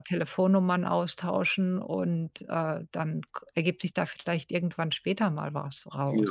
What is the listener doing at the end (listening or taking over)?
taking over